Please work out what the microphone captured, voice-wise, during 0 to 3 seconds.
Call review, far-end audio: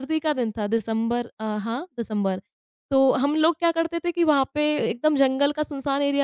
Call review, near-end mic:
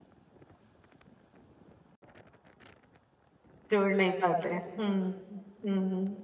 neither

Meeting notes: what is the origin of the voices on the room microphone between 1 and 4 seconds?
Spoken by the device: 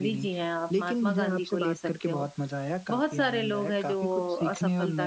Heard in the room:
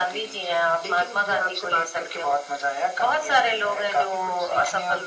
echo only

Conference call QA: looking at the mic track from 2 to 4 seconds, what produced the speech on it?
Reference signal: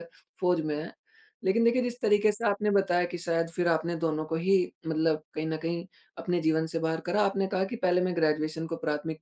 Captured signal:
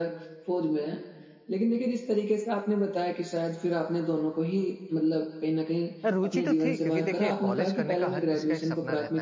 echo only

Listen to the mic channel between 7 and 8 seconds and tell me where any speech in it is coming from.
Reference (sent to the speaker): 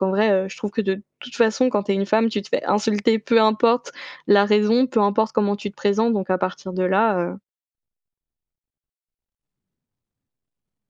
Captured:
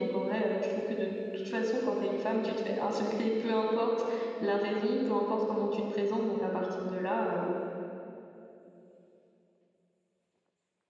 echo only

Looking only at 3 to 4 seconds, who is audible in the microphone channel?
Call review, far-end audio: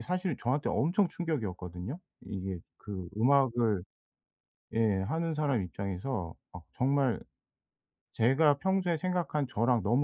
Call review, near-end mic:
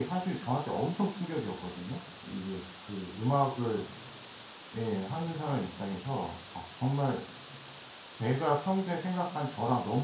echo only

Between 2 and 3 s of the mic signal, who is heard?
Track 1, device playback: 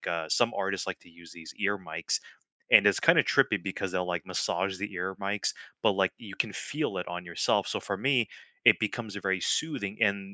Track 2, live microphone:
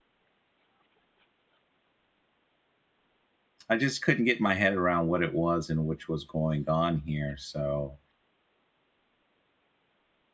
neither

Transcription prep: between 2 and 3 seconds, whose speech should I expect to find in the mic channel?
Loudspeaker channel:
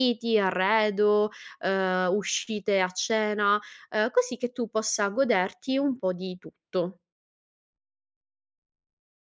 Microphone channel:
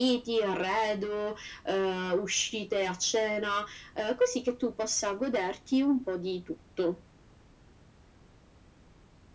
echo only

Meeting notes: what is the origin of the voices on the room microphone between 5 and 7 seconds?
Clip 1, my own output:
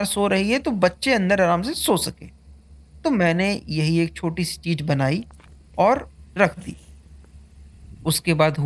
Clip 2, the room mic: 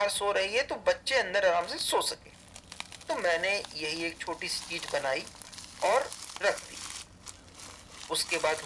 echo only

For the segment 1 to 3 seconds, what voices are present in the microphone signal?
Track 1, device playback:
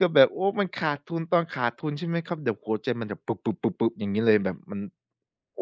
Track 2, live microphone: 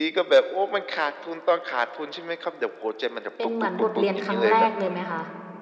echo only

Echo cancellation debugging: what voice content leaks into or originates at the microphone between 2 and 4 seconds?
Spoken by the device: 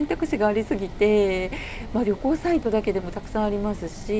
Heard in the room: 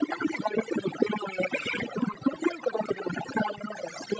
echo only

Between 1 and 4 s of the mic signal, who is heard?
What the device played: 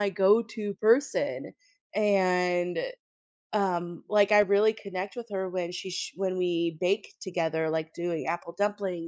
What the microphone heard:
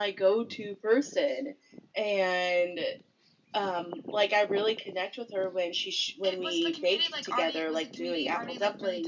echo only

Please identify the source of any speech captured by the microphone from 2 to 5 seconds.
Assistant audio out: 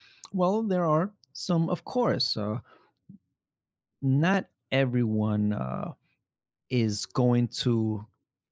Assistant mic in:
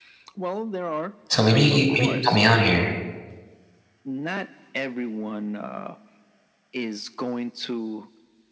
both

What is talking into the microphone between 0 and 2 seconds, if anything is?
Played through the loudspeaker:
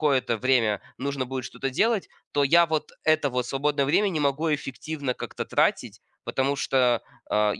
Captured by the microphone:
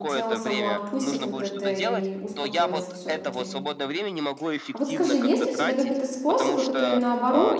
both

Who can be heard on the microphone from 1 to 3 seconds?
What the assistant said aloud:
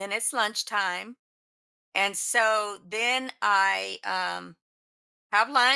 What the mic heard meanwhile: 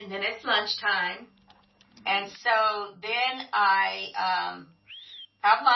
echo only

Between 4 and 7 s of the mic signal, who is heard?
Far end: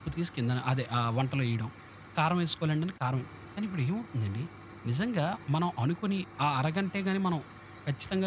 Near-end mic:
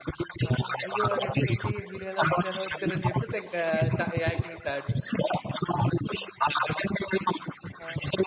both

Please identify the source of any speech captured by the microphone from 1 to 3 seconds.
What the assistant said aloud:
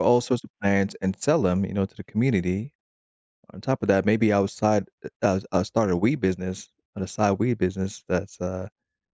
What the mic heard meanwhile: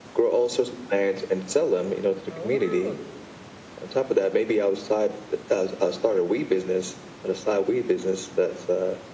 both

